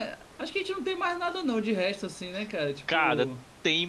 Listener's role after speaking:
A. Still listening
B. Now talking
B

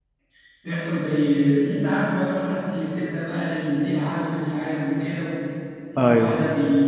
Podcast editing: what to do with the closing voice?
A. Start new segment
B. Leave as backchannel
B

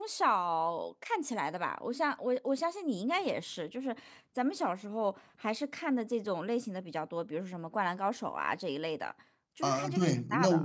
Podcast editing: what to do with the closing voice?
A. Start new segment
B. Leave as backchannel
A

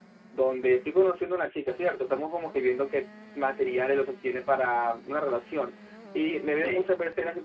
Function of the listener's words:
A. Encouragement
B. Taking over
A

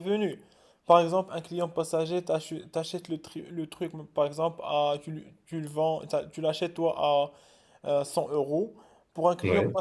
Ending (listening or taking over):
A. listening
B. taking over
A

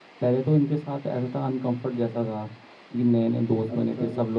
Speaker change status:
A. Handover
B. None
B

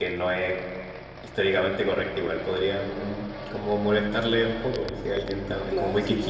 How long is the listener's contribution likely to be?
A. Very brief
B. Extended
B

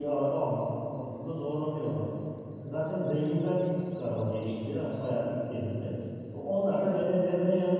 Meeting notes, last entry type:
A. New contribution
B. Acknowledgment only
B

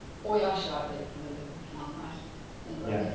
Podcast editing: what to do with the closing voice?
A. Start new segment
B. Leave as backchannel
B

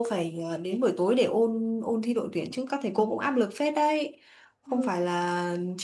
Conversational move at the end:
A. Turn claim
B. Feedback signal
B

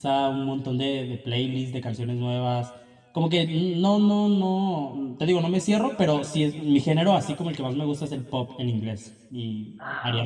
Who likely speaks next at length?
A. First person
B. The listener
B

